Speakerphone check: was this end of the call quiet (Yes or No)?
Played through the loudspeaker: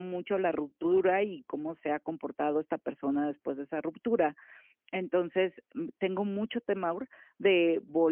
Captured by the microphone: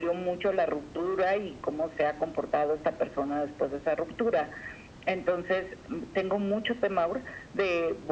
Yes